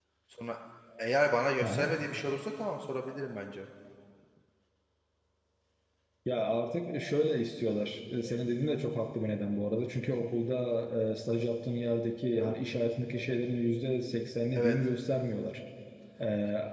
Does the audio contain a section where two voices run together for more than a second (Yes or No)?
No